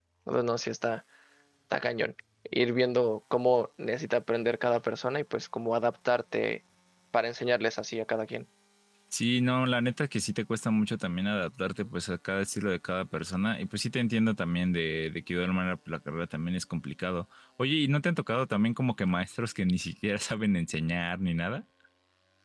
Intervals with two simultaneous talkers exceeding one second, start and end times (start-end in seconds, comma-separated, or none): none